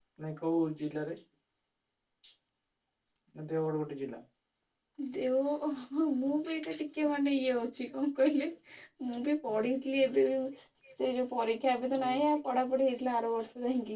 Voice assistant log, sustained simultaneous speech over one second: none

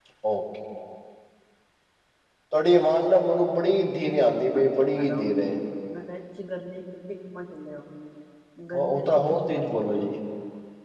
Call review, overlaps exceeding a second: present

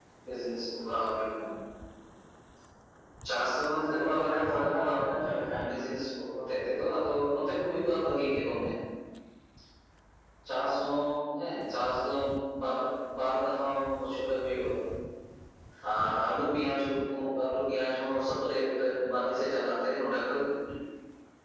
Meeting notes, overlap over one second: present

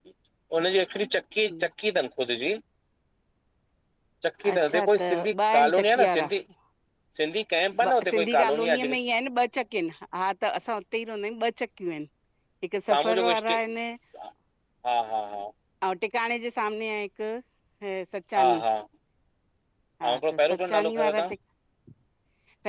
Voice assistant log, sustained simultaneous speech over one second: present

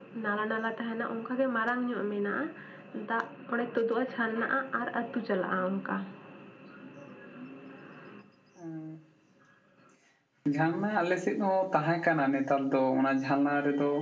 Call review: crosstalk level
none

